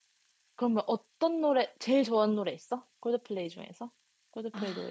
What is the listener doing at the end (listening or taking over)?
taking over